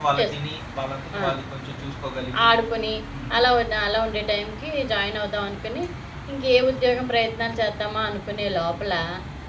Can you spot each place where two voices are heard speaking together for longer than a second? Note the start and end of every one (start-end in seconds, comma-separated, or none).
none